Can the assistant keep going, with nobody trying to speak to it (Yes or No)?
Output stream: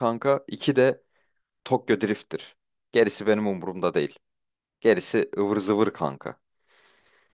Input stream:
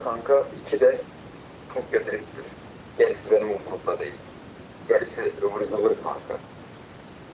Yes